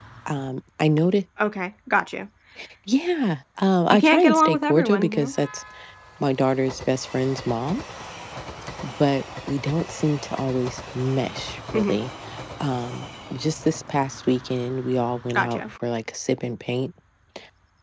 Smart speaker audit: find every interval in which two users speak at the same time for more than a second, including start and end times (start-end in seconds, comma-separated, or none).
4.0-5.3